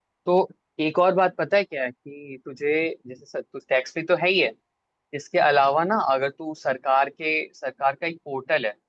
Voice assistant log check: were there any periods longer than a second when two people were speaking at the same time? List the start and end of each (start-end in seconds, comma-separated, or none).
none